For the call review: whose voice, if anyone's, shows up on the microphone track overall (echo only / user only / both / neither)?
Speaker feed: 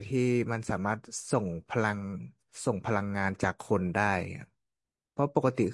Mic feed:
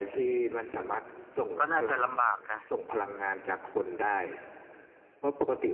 both